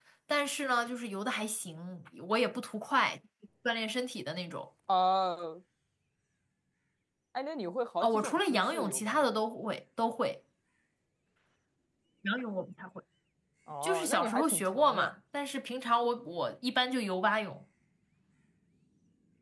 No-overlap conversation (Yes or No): No